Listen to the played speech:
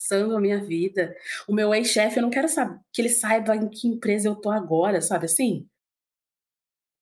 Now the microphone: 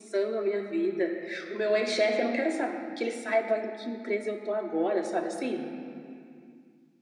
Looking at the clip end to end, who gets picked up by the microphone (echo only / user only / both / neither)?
echo only